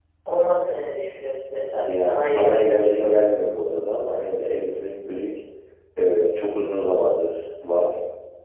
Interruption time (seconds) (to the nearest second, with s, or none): 2 s